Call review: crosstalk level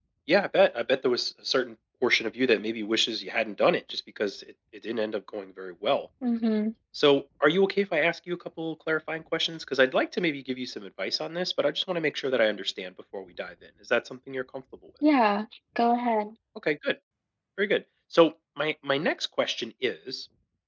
none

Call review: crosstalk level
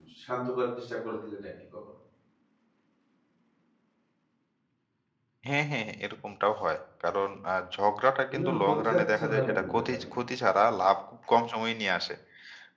present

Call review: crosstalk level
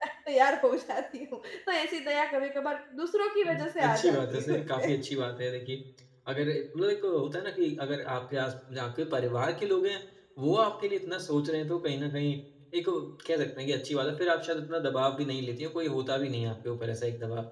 present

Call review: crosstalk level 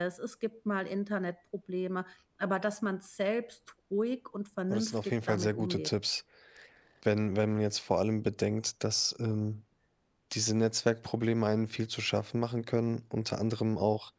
present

